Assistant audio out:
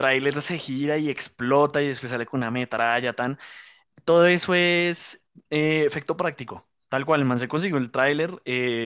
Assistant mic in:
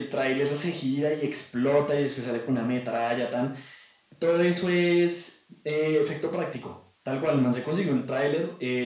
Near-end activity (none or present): none